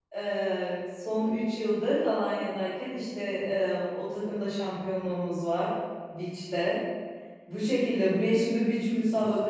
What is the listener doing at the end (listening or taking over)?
listening